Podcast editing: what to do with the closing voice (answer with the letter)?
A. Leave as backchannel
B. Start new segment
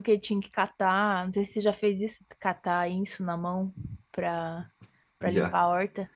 A